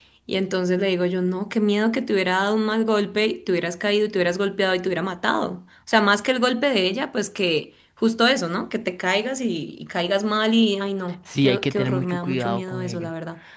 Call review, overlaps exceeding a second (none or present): present